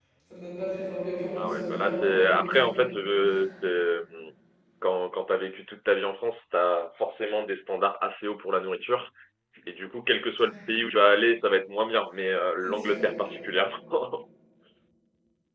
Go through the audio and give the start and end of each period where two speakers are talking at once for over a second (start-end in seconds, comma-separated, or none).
1.4-2.7